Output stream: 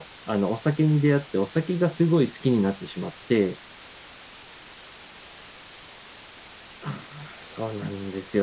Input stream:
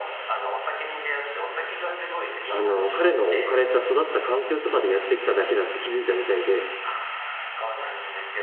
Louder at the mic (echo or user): user